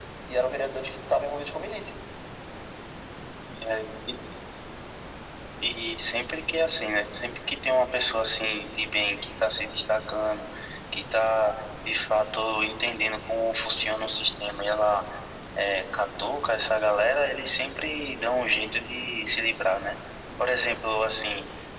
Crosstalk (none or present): none